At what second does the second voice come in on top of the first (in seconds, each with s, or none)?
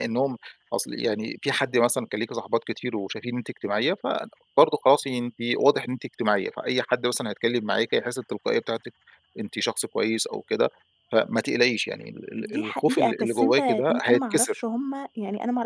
12.3 s